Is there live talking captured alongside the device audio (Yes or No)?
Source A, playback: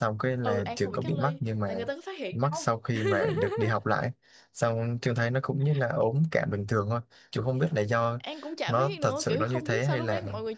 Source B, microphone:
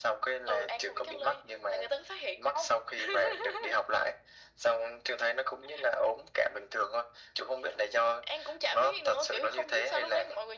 No